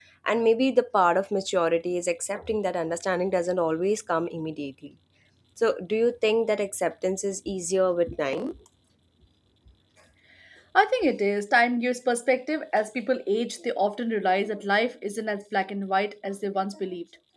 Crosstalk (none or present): none